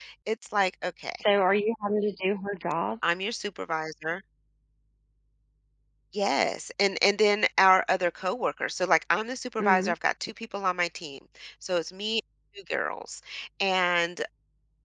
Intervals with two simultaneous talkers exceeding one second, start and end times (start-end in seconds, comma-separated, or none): none